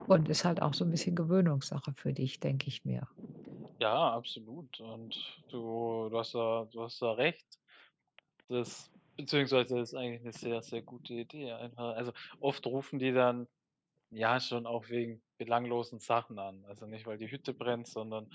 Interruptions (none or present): none